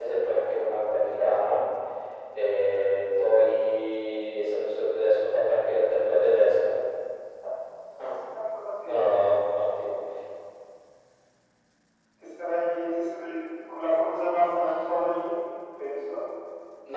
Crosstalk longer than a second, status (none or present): none